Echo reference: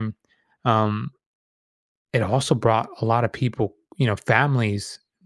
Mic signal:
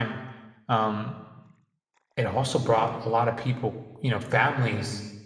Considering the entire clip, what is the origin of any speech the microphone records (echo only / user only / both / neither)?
echo only